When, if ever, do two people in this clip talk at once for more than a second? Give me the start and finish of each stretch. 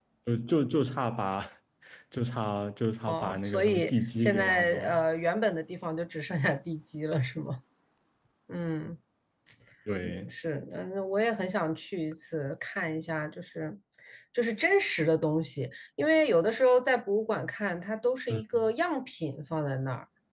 3.1-5.0

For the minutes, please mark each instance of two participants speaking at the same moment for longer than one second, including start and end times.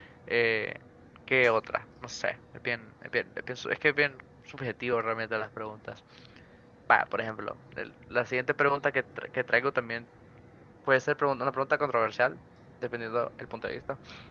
none

